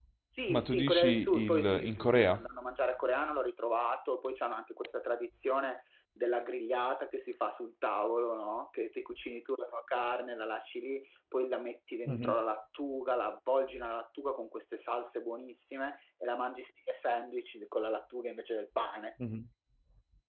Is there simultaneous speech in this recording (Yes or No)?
Yes